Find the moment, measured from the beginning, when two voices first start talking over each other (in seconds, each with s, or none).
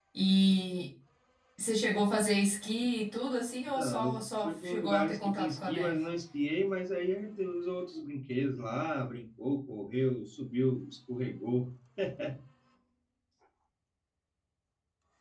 3.8 s